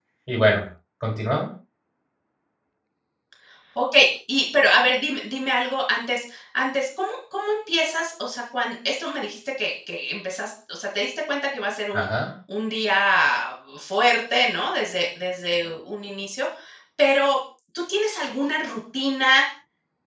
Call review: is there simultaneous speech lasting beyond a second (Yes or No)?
No